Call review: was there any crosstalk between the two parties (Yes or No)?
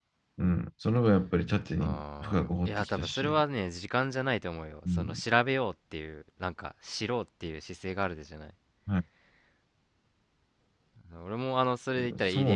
Yes